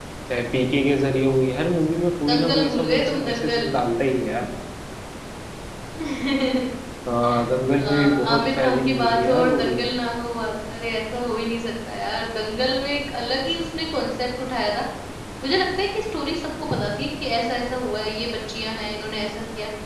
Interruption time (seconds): 2.3 s

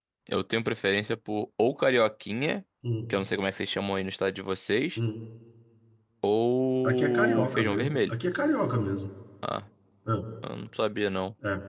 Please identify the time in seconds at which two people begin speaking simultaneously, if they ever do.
6.8 s

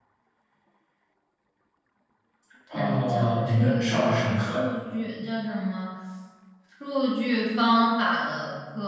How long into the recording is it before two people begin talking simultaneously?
2.8 s

